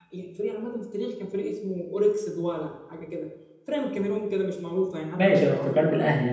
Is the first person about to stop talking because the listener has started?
Yes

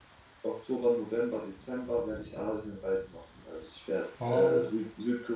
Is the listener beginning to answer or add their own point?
No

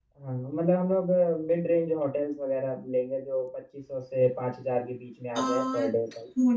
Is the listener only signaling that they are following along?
No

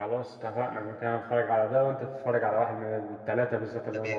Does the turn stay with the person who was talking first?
No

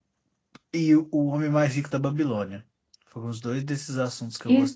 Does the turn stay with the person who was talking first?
No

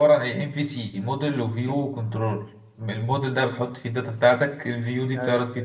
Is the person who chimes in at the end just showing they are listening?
Yes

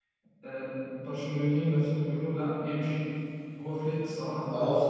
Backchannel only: Yes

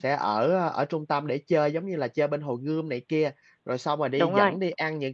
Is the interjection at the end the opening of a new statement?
No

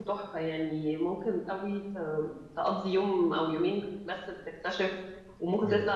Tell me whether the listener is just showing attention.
Yes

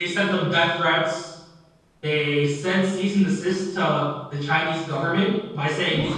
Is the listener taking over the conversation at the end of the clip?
No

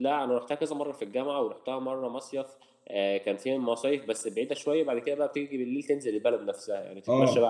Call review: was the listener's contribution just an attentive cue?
Yes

